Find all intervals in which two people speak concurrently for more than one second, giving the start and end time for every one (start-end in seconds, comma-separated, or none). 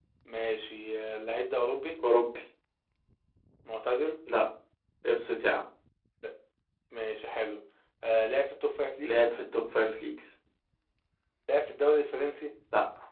none